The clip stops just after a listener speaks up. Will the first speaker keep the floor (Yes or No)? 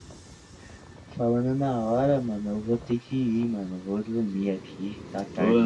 No